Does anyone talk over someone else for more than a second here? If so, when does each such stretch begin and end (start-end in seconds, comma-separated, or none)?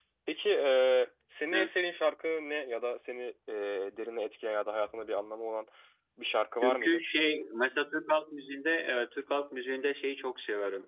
none